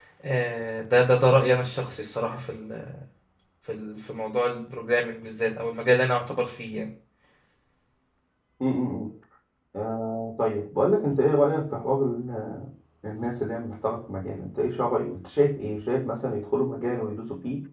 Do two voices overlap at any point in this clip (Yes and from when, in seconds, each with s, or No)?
No